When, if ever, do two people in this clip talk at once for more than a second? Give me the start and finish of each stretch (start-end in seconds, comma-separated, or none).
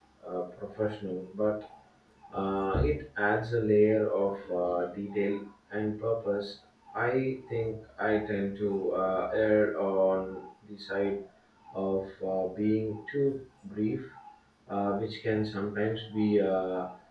none